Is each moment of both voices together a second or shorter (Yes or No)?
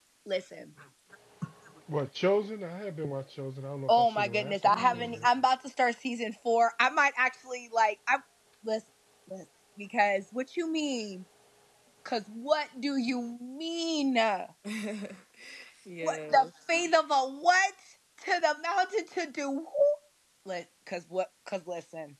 No